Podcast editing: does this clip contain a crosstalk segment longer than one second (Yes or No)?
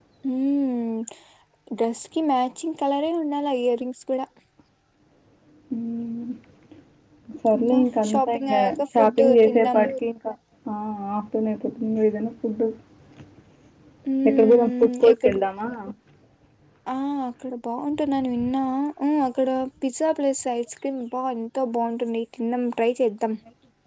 Yes